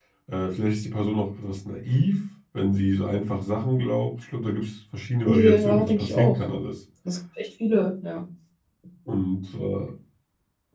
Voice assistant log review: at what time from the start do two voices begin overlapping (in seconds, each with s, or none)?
5.2 s